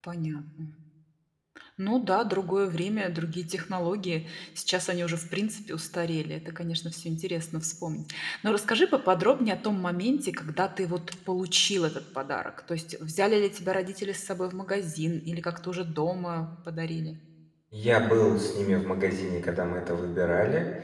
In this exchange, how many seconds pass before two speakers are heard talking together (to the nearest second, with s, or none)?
none